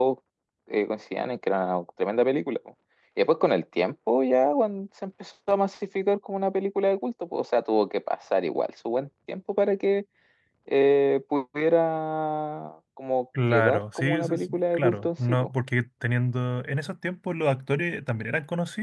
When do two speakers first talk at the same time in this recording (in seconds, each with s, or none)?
13.3 s